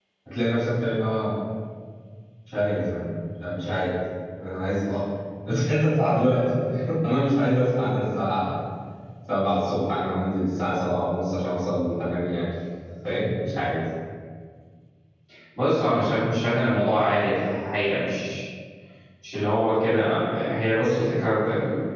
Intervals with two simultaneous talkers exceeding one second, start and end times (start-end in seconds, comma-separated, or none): none